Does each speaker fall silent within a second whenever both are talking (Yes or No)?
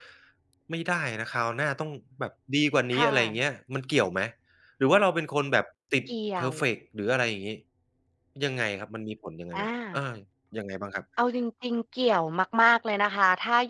Yes